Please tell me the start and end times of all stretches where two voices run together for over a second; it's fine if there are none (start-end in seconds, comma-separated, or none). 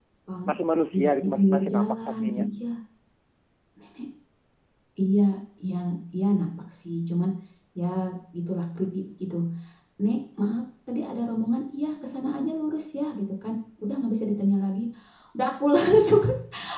0.9-2.4